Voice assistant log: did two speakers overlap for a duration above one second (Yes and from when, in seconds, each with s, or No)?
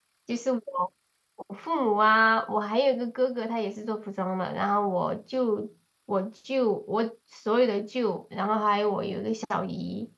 No